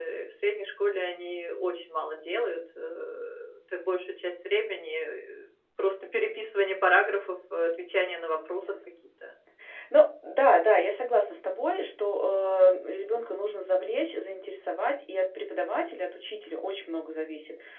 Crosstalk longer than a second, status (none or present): none